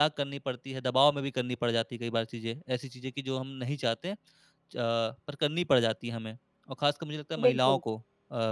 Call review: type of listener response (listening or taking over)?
listening